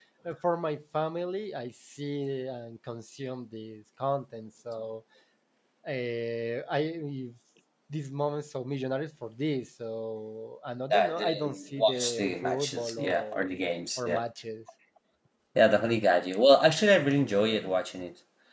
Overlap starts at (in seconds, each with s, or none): 10.9 s